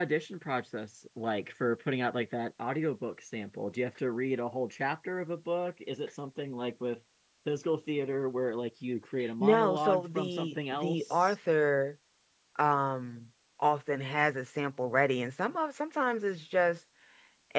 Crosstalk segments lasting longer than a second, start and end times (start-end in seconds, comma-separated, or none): 9.4-11.3